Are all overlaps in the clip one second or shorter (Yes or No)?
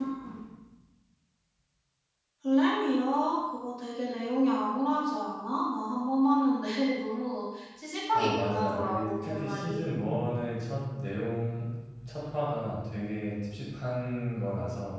No